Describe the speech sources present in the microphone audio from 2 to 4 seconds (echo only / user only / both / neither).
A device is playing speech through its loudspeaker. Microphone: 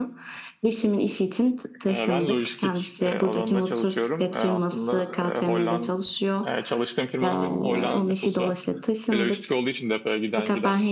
echo only